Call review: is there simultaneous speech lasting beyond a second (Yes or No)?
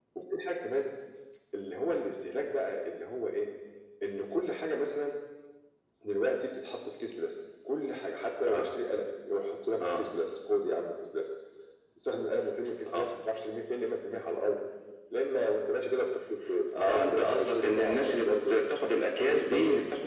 Yes